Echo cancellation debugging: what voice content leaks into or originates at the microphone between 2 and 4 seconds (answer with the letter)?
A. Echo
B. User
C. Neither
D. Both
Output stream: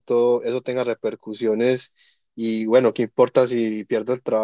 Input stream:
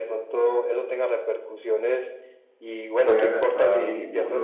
D